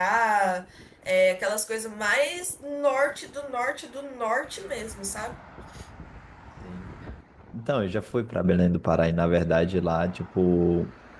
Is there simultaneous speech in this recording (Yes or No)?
No